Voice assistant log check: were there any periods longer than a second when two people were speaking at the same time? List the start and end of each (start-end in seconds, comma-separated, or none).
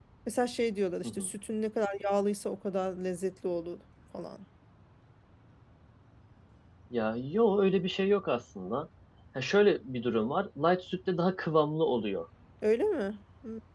none